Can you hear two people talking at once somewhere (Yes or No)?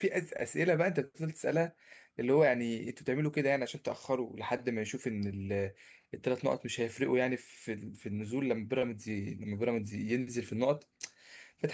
No